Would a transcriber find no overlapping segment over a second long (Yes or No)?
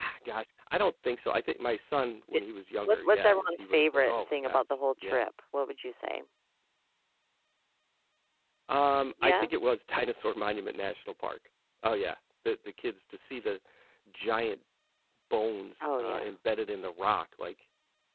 No